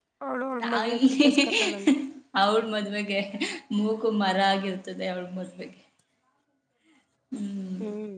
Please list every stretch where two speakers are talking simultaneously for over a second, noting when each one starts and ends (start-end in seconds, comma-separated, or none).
0.6-1.9